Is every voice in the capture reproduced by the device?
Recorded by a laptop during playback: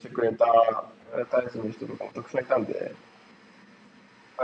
Yes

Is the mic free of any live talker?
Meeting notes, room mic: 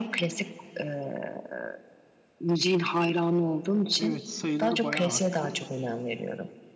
No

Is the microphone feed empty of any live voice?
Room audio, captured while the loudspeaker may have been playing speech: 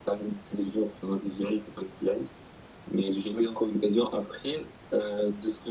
Yes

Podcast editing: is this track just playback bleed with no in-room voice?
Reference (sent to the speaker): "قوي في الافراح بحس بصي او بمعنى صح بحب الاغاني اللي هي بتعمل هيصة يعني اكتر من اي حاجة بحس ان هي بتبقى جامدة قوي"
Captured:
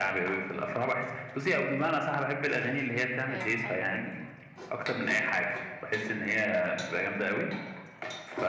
No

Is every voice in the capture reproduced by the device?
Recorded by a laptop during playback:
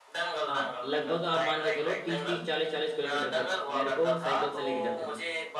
No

